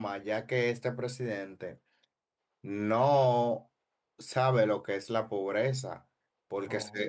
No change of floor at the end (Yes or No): Yes